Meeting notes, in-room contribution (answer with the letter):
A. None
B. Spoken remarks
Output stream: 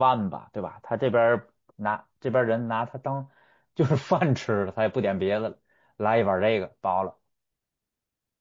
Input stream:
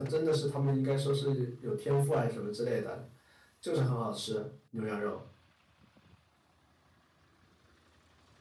B